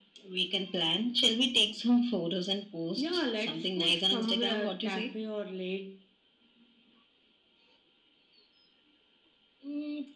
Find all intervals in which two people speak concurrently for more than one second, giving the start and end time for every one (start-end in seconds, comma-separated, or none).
3.0-5.2